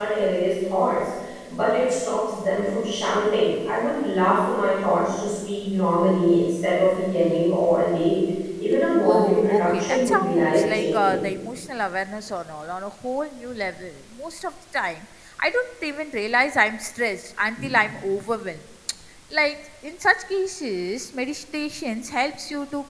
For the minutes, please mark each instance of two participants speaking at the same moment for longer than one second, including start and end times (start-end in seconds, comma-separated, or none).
9.0-11.2